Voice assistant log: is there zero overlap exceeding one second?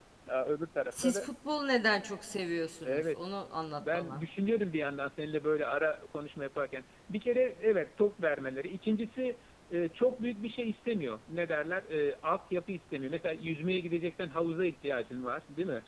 Yes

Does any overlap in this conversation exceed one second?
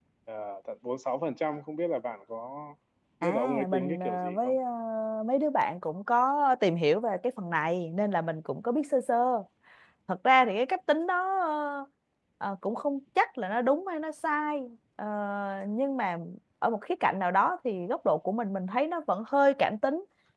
Yes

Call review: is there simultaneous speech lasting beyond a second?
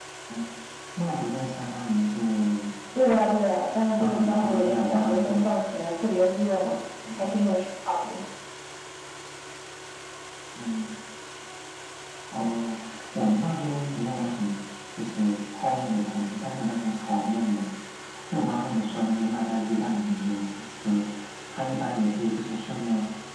Yes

